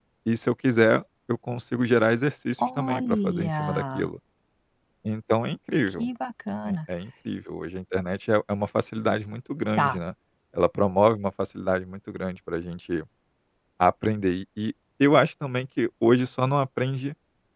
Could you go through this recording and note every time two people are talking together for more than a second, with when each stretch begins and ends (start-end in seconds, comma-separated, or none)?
2.8-4.1